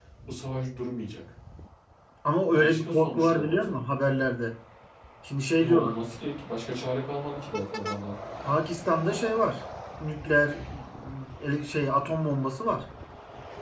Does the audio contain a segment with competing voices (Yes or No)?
Yes